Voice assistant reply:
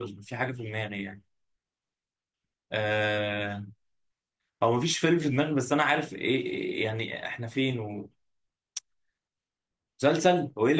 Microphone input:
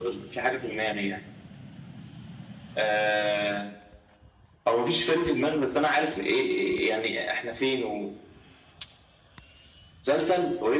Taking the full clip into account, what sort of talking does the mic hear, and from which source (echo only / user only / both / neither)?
echo only